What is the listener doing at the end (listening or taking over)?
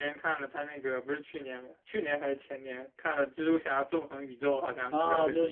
taking over